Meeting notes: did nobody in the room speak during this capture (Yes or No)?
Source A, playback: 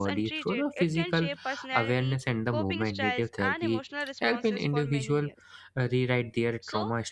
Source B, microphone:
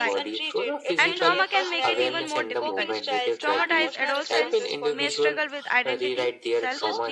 No